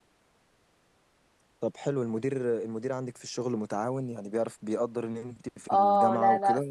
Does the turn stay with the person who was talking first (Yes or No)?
No